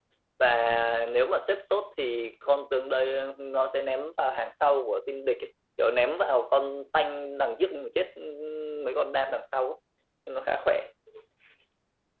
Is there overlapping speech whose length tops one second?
No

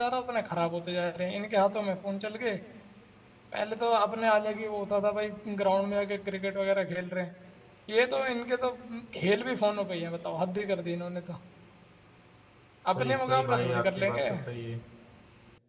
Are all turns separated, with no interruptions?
No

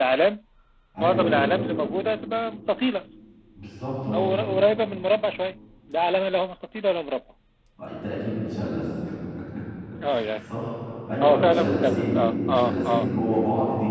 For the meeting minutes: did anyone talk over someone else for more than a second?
Yes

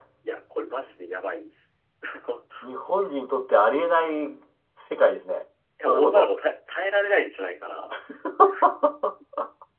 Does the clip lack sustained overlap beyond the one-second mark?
Yes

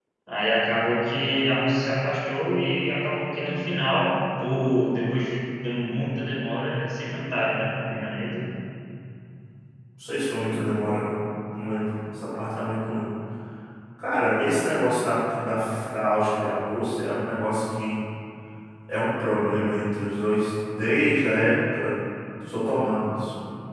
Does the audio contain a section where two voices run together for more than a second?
No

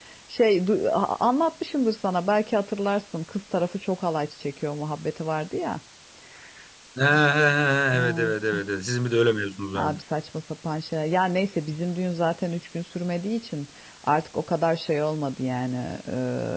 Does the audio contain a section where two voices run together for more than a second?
No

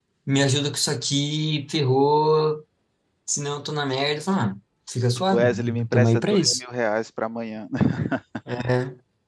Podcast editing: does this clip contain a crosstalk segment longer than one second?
Yes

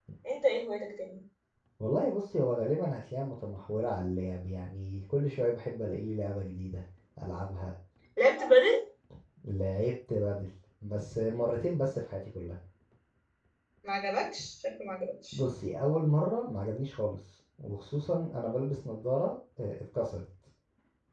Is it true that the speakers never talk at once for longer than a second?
Yes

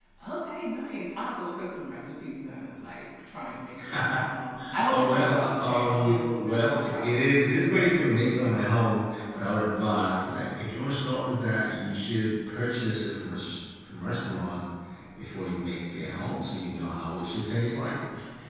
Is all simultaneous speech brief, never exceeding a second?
No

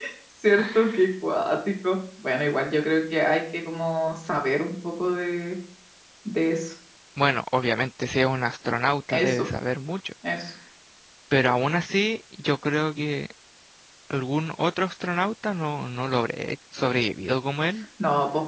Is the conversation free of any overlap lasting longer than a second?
Yes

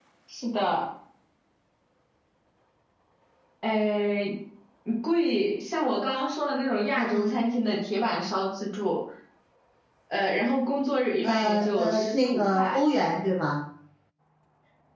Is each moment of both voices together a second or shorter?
No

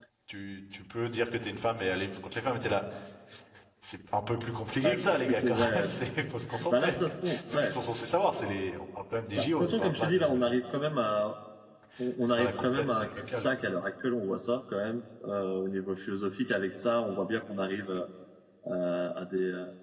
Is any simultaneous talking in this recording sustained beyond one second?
Yes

